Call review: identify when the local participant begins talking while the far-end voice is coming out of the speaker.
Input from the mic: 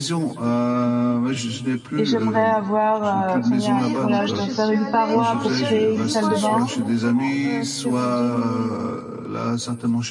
1.9 s

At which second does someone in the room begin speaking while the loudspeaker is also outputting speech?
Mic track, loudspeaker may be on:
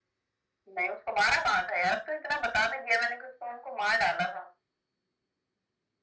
none

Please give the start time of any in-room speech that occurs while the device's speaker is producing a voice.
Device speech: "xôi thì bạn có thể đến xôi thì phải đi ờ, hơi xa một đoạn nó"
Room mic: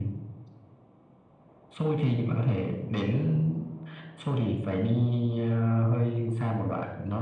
none

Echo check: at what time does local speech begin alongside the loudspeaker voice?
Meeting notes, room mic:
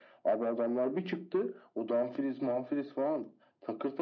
none

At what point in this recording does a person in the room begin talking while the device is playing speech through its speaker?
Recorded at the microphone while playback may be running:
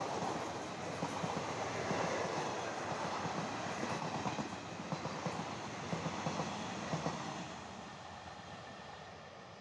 none

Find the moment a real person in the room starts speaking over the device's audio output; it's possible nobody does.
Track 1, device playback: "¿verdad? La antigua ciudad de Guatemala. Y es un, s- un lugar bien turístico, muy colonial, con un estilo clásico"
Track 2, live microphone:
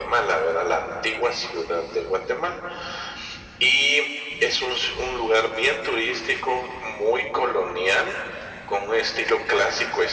none

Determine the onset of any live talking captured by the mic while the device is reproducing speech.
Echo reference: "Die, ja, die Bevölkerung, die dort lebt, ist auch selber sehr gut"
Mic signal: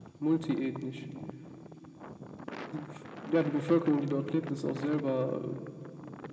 none

